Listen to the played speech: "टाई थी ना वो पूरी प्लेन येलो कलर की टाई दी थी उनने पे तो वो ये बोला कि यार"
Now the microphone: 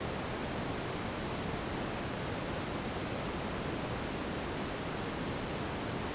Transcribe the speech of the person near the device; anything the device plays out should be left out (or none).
none